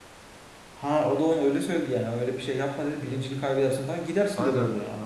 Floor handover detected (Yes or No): Yes